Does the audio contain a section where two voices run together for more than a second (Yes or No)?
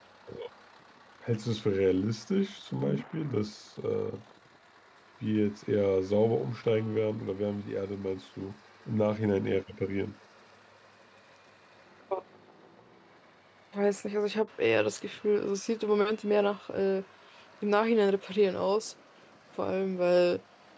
No